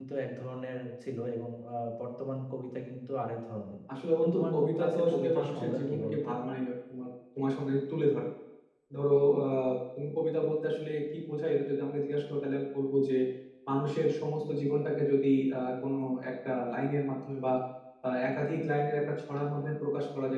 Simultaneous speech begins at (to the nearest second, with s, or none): 4 s